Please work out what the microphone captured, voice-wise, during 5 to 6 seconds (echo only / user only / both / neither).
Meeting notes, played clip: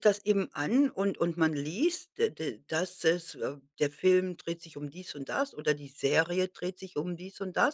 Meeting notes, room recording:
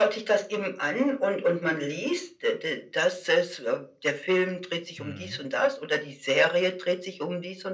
both